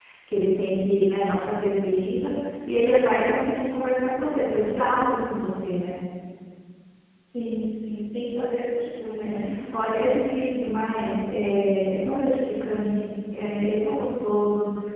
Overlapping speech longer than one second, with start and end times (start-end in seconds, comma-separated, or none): none